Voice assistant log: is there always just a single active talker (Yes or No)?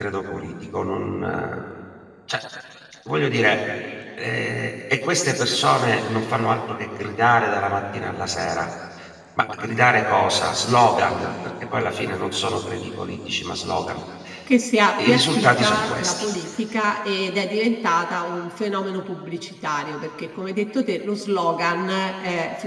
No